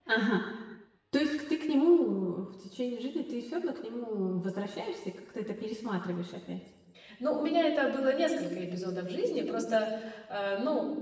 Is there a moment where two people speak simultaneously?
No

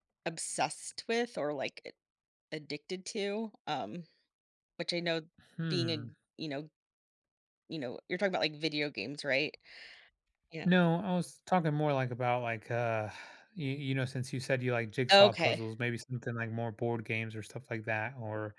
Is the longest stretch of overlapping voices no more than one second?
Yes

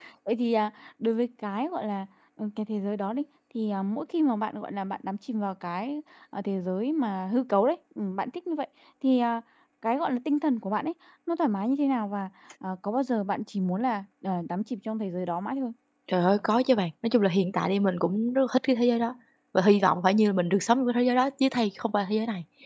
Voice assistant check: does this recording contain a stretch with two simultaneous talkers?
No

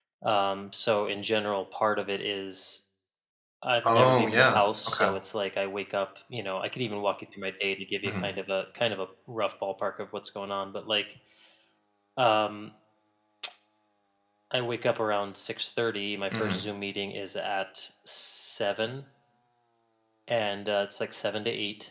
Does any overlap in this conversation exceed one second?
Yes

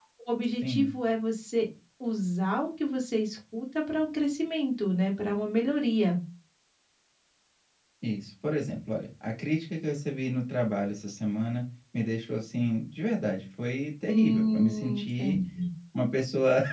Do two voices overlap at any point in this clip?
Yes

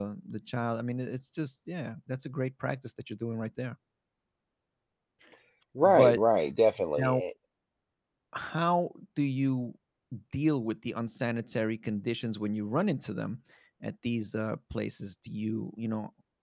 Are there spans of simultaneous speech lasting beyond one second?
No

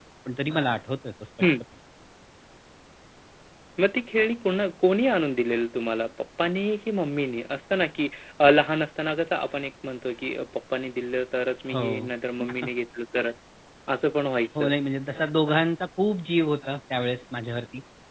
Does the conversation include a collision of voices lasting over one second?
No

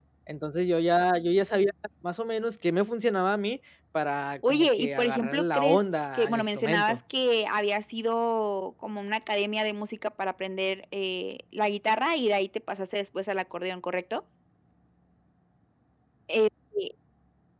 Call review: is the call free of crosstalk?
No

